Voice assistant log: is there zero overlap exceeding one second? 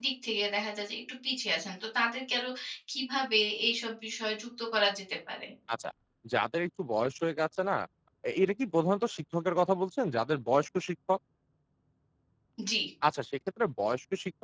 Yes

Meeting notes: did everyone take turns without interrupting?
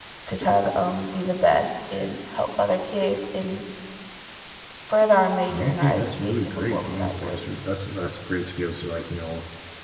No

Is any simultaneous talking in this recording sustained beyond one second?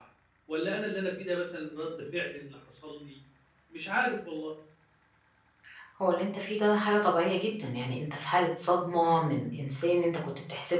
No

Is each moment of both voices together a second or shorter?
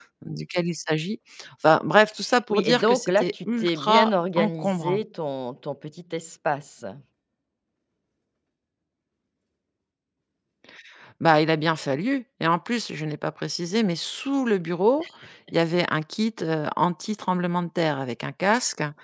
No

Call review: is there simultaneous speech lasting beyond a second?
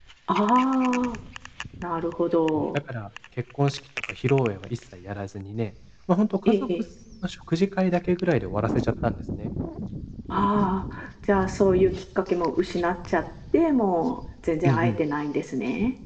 No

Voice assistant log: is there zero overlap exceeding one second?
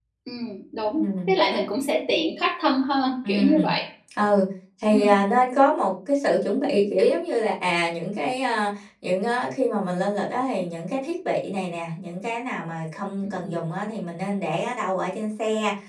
Yes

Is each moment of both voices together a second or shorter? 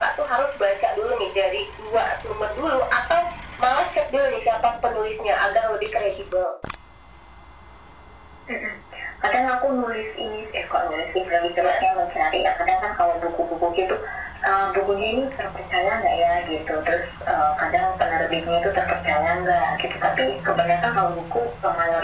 Yes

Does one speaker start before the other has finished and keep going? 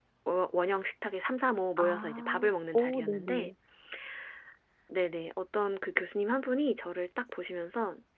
Yes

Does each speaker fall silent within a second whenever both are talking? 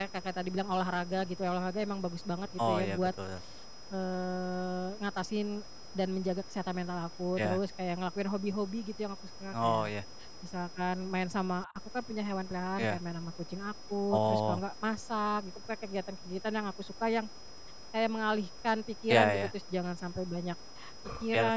Yes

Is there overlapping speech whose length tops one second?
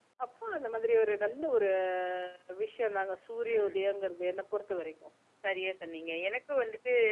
No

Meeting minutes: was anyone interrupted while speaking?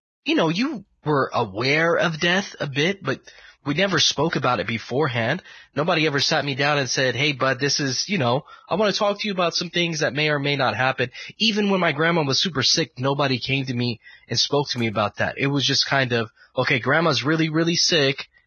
No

